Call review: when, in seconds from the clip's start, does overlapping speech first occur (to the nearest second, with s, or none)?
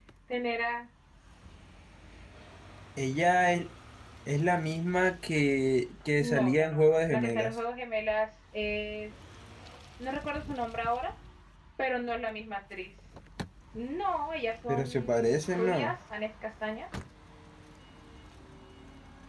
6 s